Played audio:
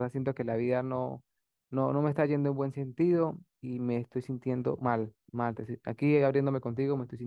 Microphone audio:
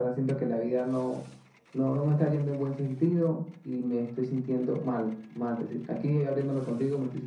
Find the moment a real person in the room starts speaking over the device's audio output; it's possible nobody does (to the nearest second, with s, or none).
none